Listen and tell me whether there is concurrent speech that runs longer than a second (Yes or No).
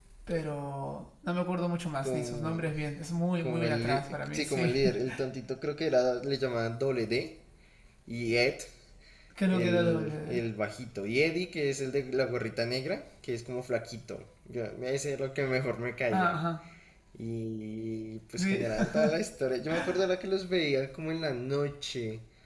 Yes